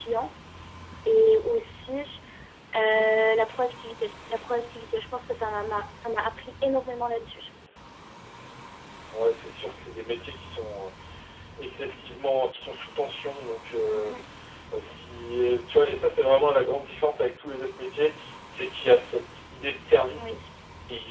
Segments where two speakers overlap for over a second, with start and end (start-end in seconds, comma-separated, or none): none